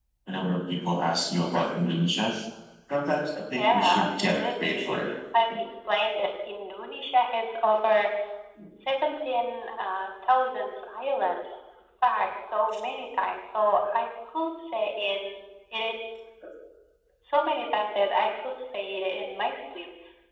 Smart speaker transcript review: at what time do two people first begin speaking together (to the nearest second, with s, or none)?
4 s